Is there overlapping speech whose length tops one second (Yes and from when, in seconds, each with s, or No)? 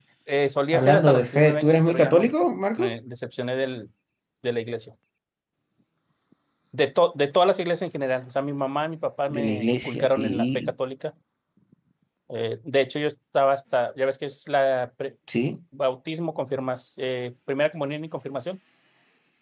Yes, from 0.7 s